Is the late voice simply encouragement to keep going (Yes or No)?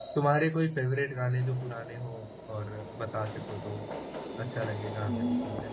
No